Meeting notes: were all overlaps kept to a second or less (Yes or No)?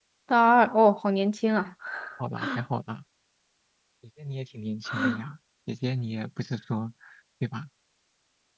Yes